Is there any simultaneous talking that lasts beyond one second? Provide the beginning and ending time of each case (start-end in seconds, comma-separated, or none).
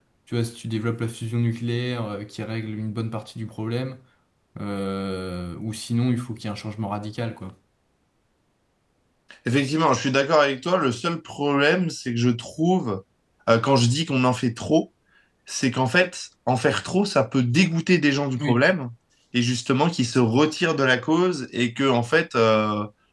none